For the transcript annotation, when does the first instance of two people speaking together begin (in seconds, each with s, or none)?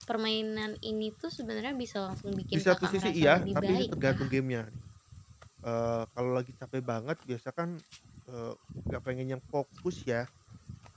2.5 s